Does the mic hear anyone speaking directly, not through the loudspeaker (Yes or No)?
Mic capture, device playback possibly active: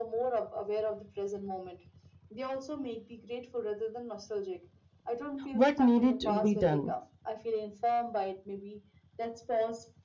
Yes